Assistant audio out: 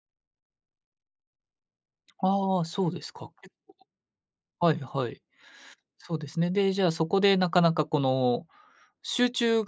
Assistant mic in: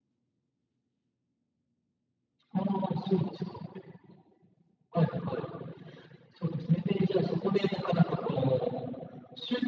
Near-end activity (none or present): none